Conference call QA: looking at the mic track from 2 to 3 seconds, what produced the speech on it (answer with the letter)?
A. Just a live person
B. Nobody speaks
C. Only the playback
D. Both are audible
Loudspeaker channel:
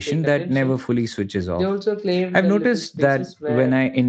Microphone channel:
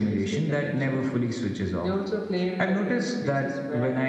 C